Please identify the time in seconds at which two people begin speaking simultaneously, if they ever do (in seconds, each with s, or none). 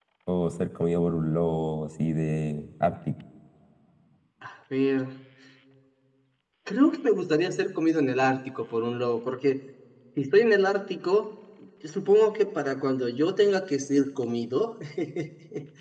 none